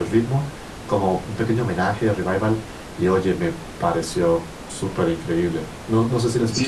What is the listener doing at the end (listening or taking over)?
taking over